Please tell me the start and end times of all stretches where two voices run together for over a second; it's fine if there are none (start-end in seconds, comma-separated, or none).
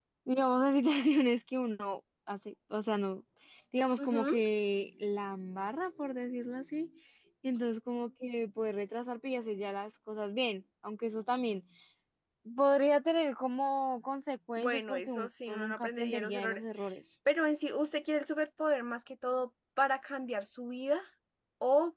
14.6-16.6